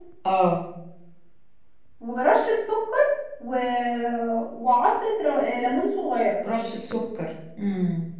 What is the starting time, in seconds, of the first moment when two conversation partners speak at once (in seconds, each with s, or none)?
none